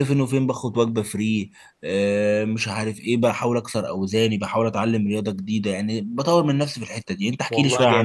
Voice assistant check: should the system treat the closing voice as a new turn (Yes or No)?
Yes